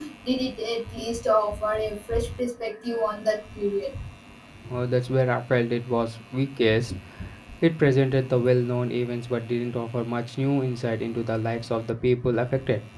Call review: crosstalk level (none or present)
none